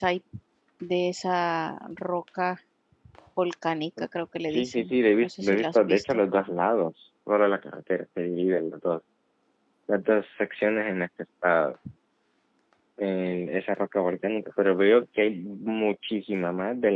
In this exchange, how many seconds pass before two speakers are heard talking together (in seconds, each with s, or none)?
4.5 s